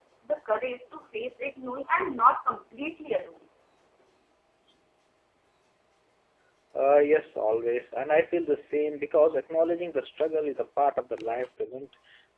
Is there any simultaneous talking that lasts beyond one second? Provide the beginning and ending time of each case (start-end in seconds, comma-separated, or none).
none